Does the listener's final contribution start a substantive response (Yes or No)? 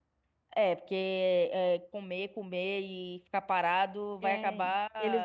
Yes